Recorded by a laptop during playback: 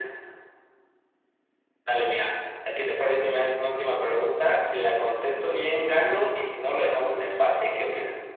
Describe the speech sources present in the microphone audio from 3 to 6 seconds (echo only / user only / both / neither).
echo only